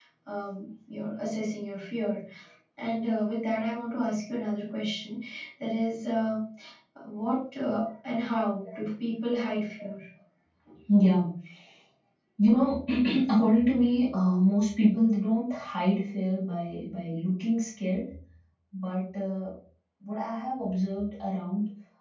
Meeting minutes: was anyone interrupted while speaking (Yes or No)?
No